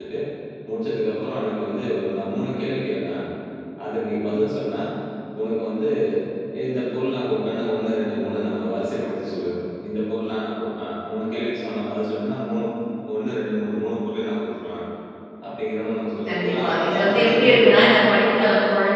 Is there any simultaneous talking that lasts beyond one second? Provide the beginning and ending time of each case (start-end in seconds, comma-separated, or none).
16.3-18.1